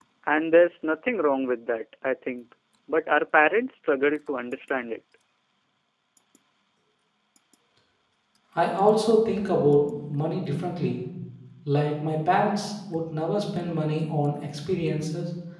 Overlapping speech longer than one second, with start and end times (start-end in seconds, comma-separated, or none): none